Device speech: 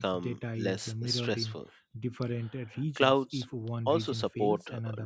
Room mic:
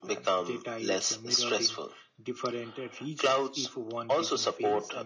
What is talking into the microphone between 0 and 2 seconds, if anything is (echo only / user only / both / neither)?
echo only